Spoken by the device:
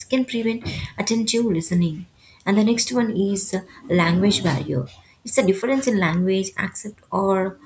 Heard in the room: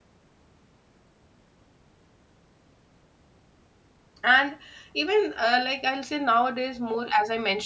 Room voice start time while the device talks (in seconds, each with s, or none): 4.2 s